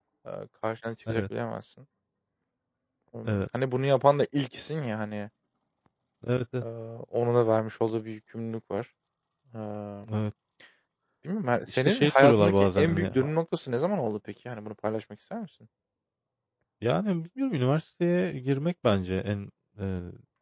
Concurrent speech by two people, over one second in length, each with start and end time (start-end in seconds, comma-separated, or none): 11.7-13.1